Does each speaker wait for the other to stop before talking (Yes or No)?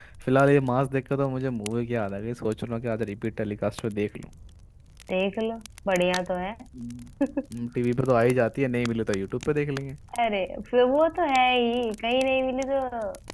Yes